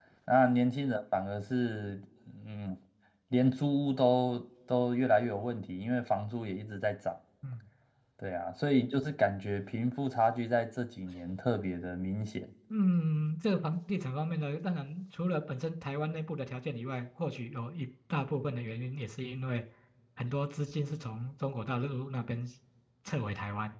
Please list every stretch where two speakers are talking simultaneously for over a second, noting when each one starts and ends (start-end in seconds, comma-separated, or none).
none